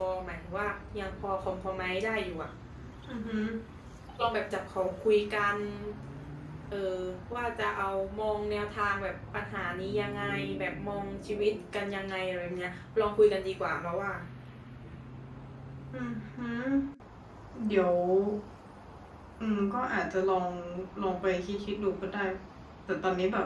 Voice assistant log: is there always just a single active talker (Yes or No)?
Yes